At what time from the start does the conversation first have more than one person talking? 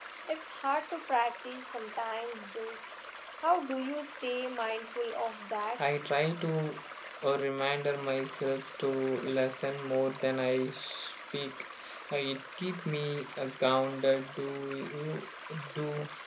none

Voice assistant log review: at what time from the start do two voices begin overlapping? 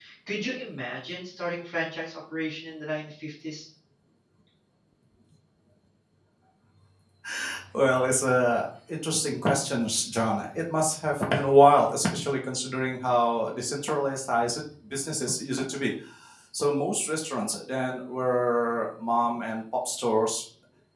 none

